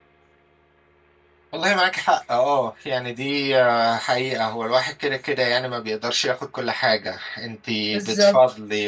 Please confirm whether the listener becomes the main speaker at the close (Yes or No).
No